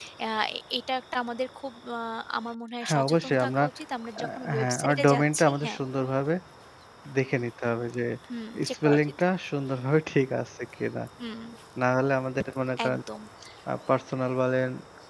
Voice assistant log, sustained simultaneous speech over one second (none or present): present